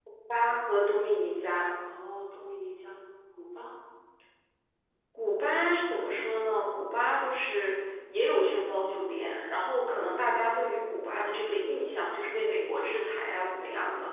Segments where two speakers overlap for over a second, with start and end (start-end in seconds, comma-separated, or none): none